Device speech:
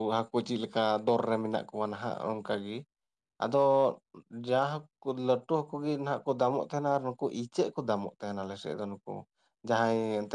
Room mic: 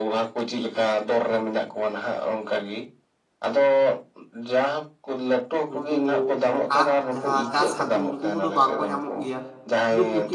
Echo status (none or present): present